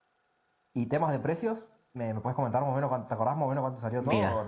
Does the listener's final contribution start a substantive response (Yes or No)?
Yes